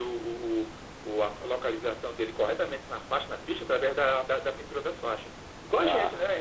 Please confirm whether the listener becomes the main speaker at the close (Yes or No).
Yes